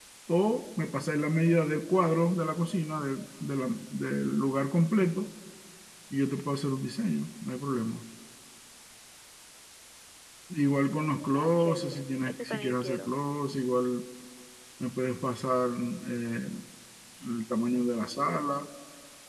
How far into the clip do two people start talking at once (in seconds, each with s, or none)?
11.4 s